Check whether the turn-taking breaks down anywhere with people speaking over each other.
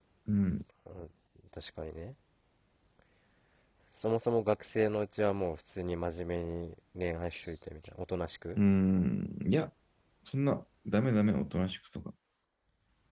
No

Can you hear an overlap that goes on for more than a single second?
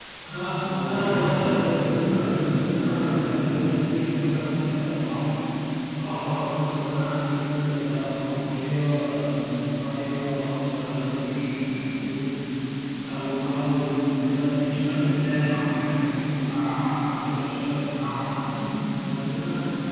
Yes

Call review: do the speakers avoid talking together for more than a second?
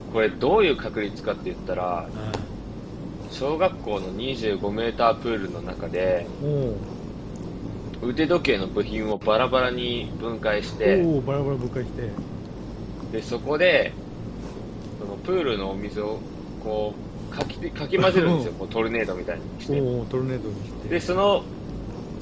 Yes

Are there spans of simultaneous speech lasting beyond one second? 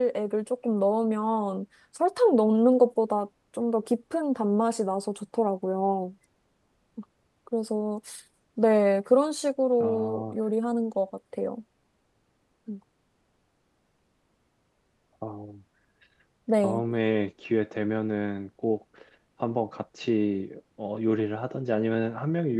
No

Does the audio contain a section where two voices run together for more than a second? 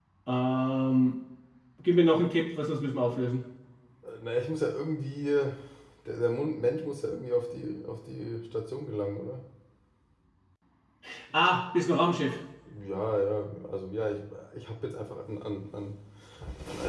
No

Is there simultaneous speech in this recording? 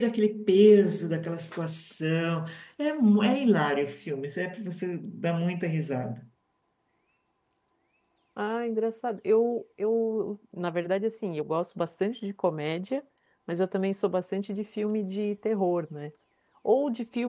No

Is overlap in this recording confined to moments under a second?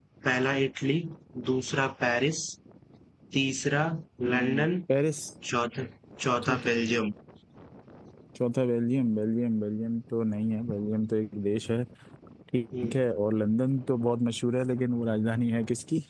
Yes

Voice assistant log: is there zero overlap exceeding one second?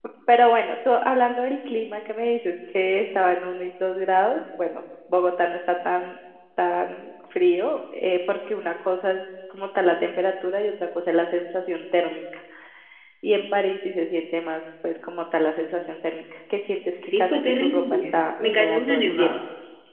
No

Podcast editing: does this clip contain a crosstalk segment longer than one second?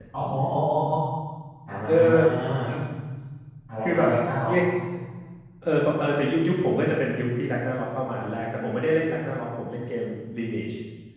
No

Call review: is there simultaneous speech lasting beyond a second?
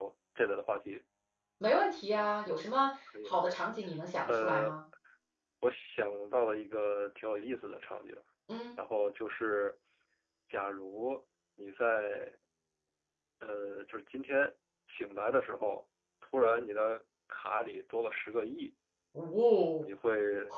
No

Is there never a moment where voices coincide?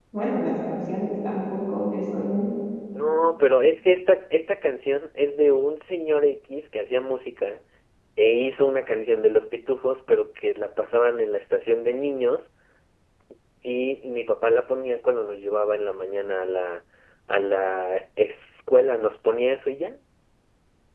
Yes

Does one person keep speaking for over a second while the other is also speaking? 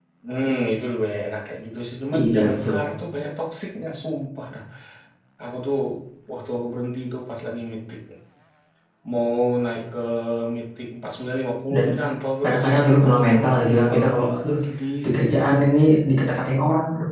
Yes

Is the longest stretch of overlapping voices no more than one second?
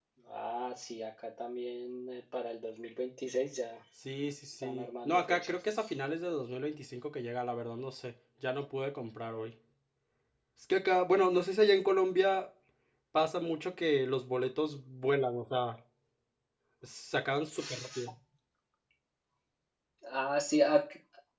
No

